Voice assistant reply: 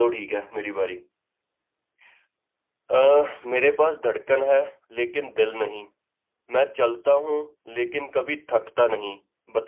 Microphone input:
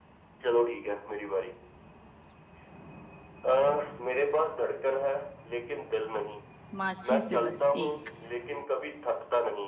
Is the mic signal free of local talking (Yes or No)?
No